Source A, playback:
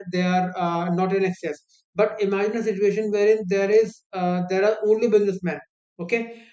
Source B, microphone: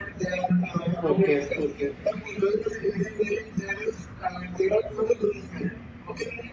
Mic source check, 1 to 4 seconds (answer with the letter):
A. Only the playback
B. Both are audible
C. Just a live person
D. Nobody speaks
B